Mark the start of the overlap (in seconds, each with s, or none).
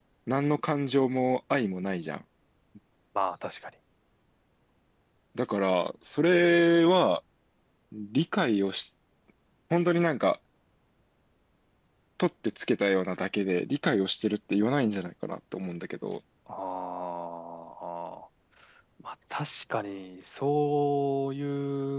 none